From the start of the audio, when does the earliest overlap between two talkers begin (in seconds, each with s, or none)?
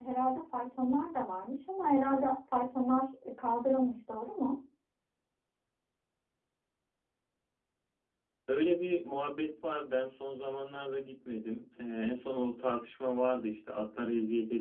none